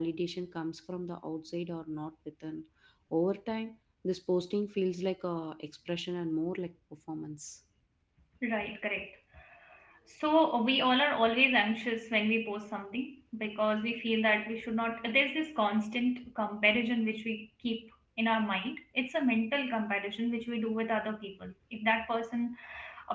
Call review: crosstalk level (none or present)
none